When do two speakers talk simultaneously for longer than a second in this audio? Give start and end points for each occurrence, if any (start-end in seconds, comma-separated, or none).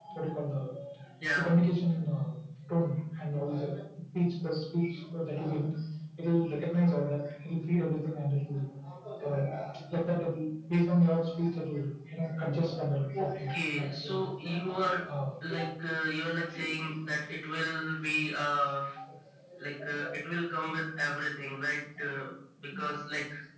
13.2-15.0